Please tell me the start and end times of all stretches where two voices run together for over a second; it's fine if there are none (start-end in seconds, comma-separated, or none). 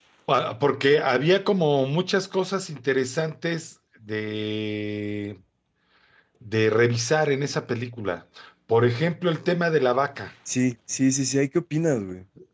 none